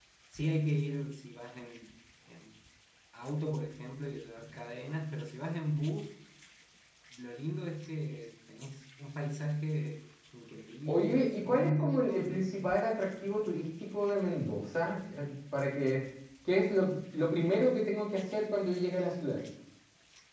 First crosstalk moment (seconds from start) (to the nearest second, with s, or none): 11 s